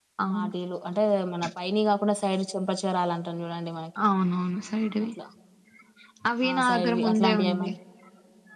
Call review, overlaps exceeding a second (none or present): present